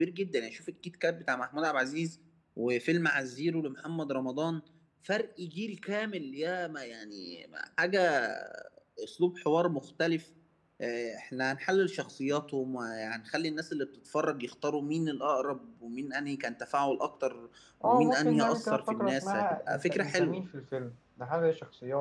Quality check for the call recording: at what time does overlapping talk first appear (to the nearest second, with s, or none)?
18 s